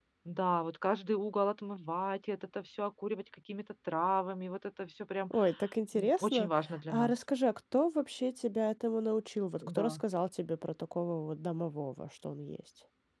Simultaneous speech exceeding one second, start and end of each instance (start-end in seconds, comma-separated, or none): none